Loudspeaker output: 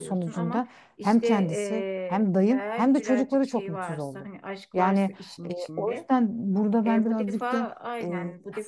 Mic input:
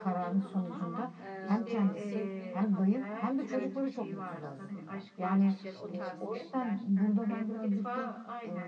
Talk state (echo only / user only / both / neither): both